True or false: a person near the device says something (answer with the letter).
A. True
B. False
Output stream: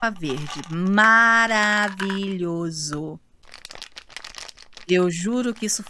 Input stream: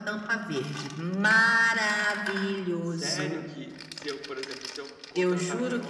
A